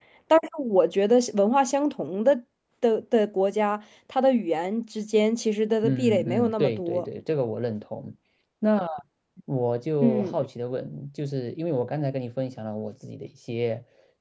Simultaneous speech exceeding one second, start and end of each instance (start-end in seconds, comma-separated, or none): 5.8-7.1